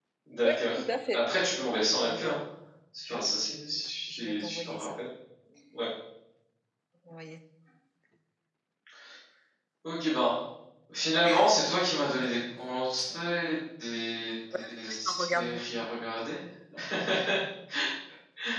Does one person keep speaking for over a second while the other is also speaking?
Yes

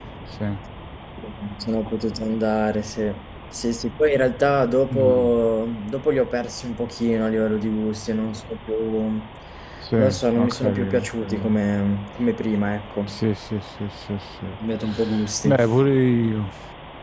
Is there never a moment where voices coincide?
No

